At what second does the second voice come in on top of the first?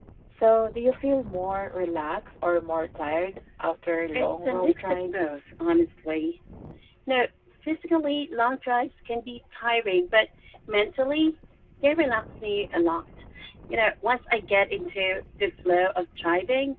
4 s

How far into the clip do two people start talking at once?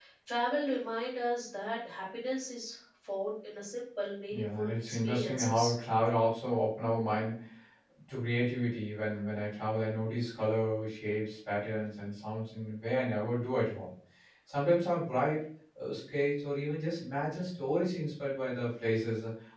4 s

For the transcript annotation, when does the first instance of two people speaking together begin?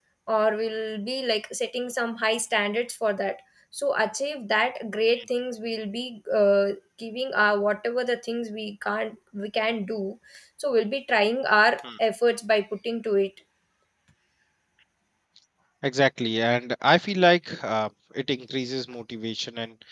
none

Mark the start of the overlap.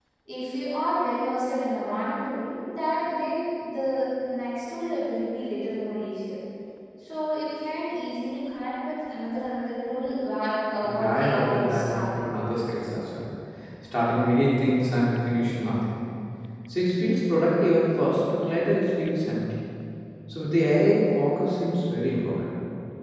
11 s

